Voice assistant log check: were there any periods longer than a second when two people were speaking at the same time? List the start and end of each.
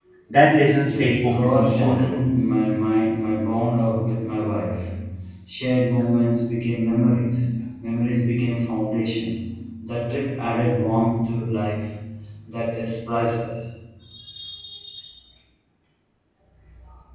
0.8-2.2

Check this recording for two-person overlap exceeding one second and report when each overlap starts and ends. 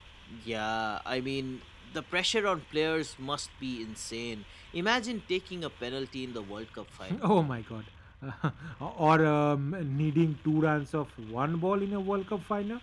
none

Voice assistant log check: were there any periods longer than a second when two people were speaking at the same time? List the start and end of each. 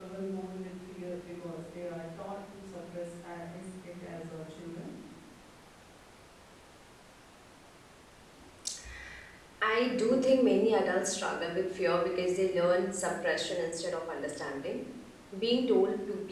none

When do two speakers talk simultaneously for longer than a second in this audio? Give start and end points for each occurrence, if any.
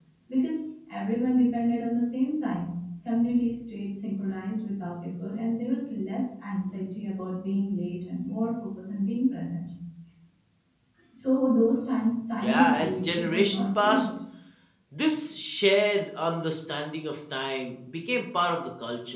12.4-14.1

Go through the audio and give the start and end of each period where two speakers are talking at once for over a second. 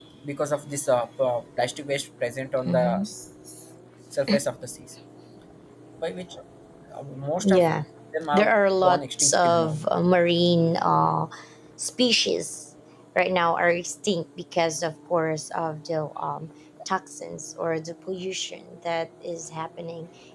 8.3-9.7

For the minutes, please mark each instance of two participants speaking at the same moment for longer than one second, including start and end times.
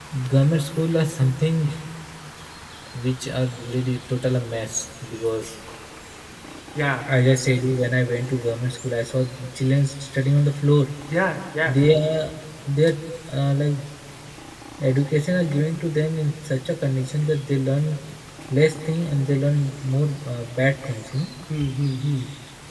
none

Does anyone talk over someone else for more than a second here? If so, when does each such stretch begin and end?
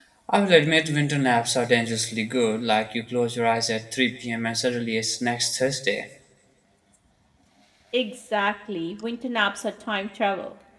none

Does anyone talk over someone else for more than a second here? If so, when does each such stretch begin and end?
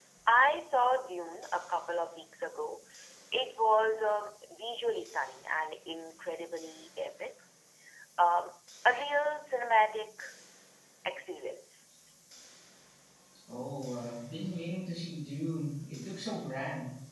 none

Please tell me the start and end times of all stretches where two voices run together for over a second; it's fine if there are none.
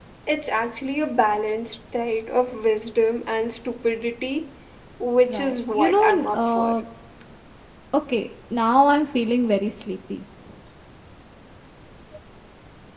5.3-6.7

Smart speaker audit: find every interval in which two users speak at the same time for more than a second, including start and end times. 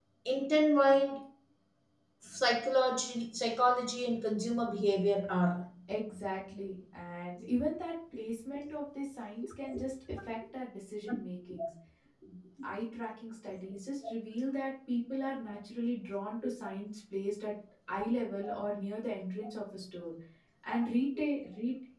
none

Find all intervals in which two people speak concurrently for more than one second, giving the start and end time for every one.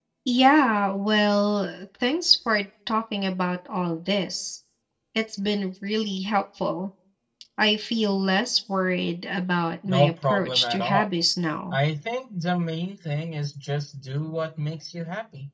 9.8-11.1

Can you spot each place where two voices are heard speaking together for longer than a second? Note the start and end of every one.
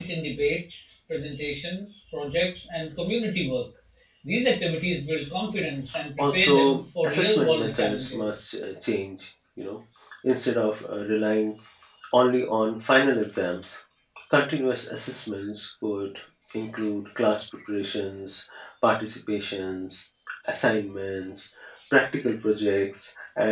6.2-8.3

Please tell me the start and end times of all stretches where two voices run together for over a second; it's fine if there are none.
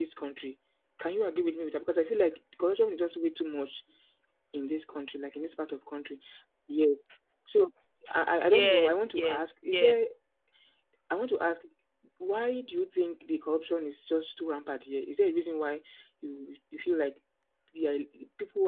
8.5-10.0

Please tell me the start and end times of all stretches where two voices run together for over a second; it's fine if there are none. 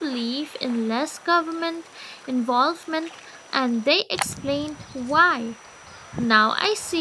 none

